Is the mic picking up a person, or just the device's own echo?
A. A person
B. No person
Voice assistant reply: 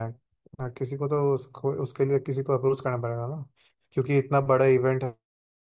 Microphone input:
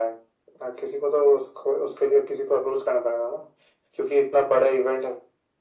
B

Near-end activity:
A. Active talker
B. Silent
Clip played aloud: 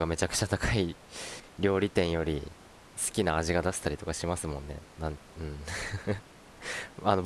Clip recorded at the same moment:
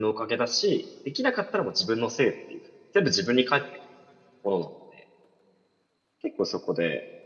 A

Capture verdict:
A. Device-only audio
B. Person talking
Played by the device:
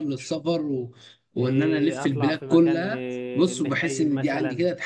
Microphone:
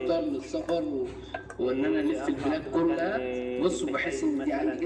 A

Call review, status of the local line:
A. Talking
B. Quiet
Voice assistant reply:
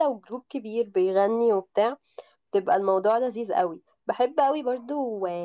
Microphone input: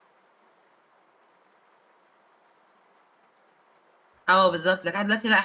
A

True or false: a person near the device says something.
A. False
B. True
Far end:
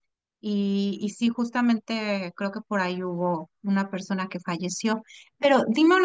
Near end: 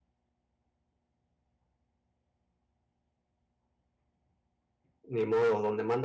B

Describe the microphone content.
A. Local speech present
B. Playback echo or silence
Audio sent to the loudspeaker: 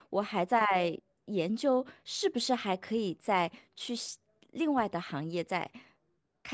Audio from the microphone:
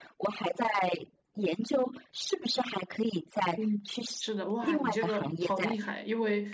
A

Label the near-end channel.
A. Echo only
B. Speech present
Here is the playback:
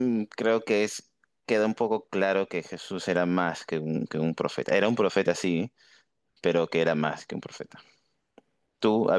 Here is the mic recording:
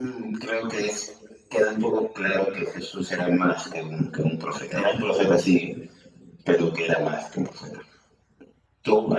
A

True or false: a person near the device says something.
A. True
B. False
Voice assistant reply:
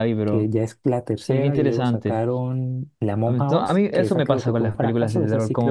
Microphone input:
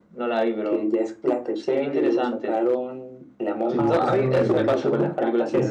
A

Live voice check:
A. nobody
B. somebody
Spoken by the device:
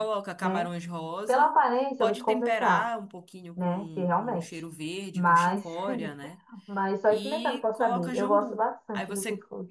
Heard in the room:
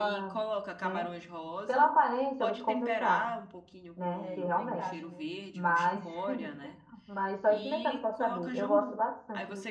B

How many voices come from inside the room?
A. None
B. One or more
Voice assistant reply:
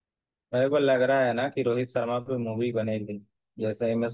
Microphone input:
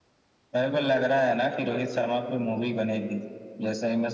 B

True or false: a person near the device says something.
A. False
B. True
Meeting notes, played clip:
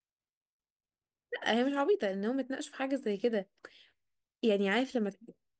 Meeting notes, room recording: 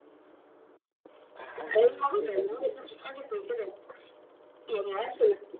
B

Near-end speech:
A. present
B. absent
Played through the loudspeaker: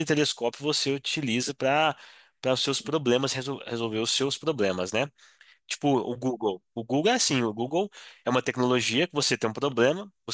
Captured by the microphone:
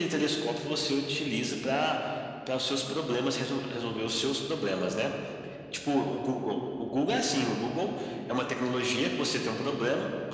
B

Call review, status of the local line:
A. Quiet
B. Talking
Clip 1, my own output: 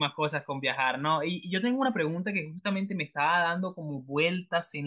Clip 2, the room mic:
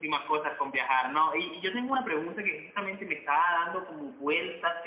A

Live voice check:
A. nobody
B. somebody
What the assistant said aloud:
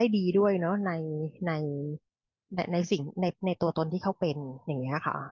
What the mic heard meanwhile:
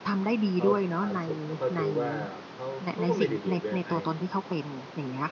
B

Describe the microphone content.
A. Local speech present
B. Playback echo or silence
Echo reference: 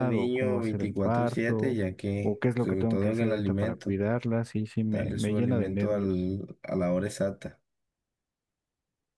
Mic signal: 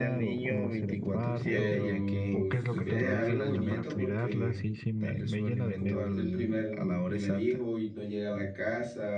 A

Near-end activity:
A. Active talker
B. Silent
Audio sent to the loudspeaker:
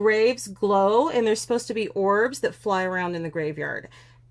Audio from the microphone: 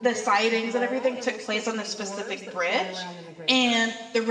A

